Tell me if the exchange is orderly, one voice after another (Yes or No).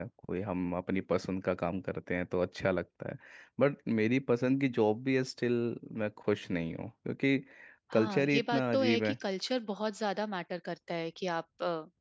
No